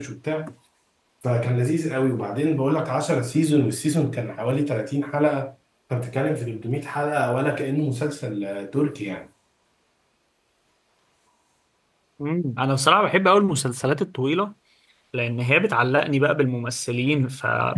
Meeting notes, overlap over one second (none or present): none